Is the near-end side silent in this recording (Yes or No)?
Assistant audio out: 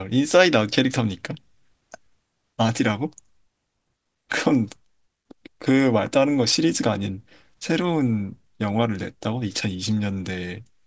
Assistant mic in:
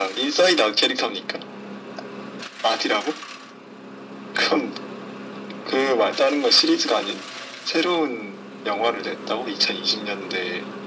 Yes